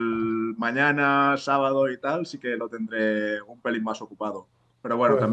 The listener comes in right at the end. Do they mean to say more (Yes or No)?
No